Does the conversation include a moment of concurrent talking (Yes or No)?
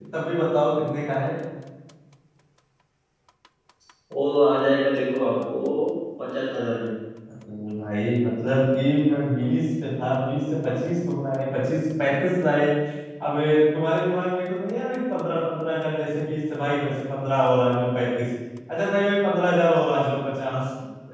No